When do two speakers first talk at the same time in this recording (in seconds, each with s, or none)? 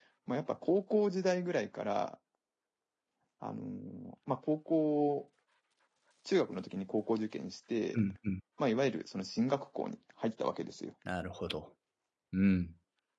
none